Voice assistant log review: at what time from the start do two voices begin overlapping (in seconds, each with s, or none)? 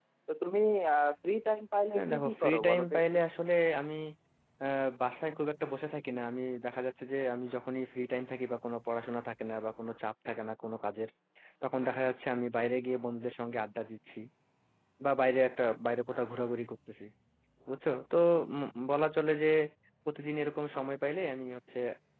1.9 s